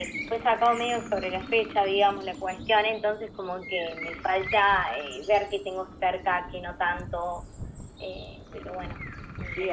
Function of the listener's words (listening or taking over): taking over